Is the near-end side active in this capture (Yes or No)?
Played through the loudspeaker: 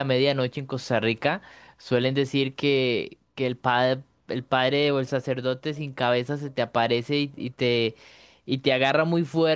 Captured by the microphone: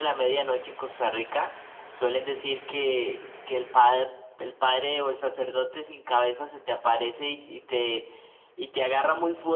No